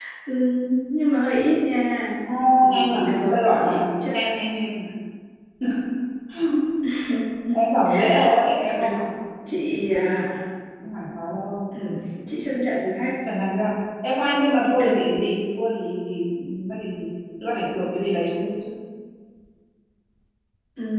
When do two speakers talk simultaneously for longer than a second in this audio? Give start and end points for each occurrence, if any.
2.7-4.3

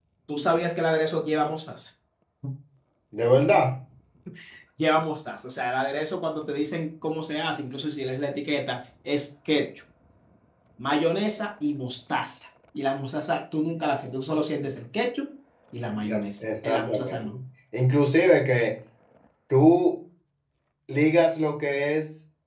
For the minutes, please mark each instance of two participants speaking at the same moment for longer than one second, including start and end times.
16.1-17.4

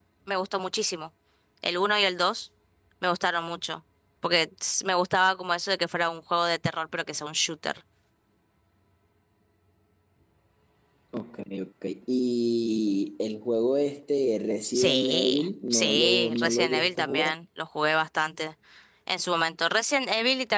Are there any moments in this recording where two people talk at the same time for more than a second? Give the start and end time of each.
14.6-17.3

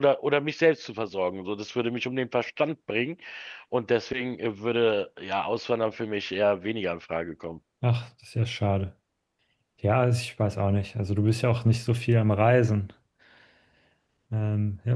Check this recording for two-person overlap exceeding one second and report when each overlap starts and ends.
none

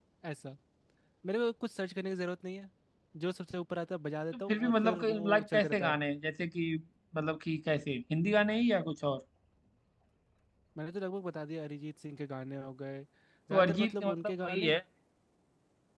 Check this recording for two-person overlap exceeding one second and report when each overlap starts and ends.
4.3-6.0, 13.5-14.7

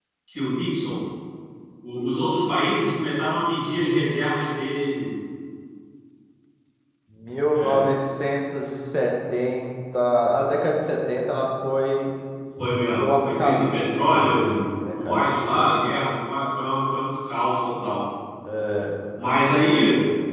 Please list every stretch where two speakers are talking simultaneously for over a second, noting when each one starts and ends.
12.9-15.3

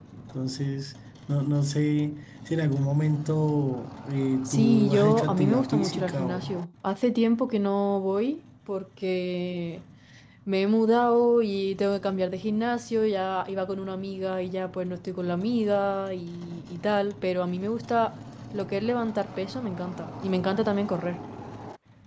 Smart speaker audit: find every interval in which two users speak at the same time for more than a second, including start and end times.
4.5-6.5

